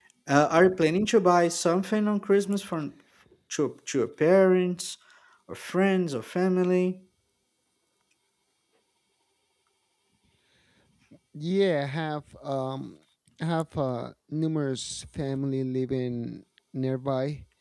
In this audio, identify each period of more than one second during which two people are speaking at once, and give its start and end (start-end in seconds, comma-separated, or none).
none